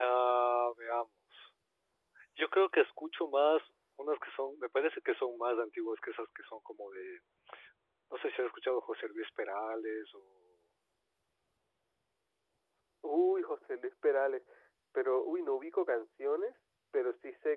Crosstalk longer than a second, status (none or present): none